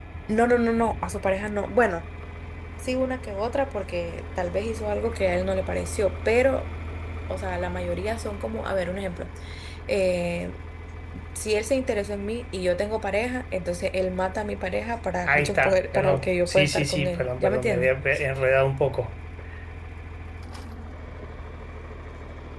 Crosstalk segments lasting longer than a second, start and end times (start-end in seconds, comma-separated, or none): 15.3-17.9